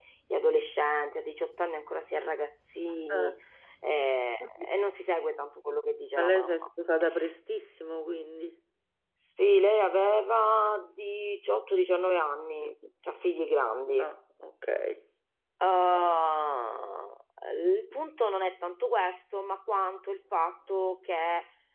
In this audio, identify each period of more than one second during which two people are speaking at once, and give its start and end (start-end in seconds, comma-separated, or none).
none